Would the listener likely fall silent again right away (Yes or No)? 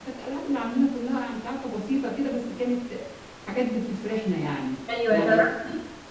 No